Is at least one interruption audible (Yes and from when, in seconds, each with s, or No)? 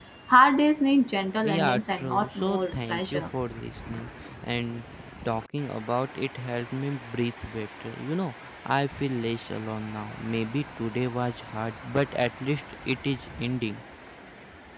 Yes, from 1.4 s